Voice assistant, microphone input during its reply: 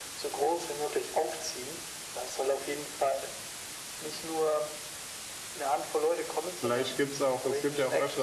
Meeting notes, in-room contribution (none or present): present